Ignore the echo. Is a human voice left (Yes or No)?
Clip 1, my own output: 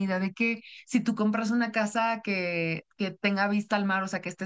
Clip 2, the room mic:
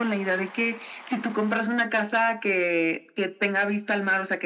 No